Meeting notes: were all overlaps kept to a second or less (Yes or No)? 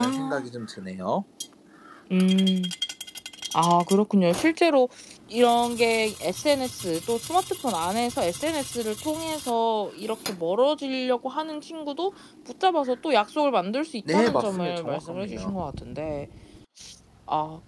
No